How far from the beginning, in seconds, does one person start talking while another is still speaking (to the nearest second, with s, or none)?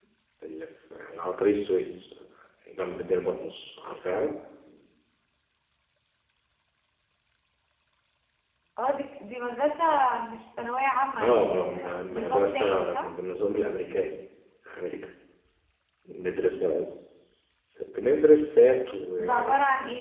11 s